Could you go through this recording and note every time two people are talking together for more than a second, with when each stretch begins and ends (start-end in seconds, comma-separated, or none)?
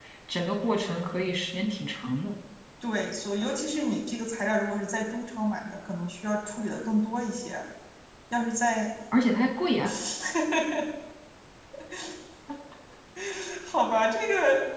none